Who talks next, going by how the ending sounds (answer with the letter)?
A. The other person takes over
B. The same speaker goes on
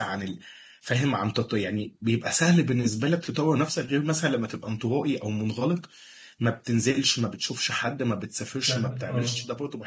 B